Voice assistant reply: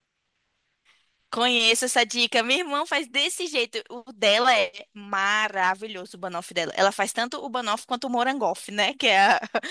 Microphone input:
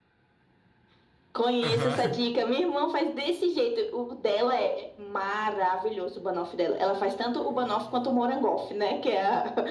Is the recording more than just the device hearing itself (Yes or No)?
Yes